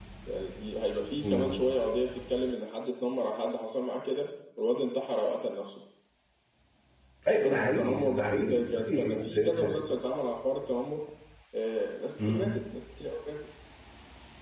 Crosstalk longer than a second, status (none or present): present